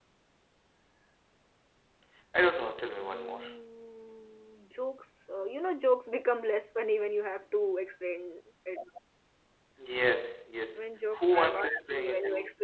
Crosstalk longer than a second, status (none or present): present